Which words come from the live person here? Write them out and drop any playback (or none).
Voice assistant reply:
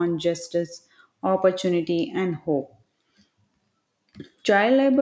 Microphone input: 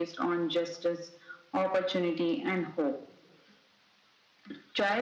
none